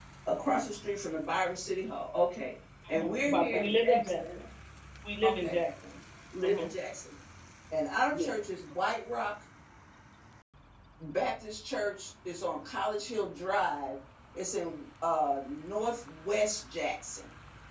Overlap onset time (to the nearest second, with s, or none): 3 s